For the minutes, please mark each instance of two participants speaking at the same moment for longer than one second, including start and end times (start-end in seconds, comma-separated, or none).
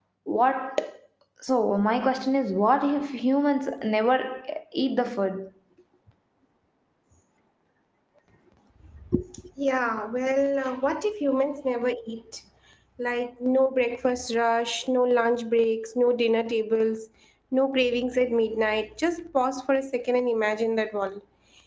none